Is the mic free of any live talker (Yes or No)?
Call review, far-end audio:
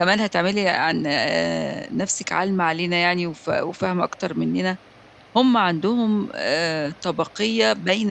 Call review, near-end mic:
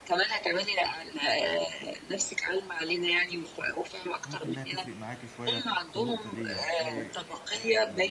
No